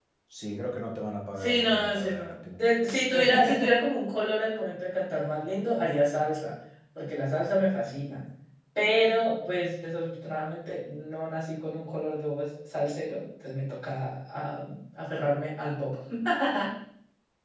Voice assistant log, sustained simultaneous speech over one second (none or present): present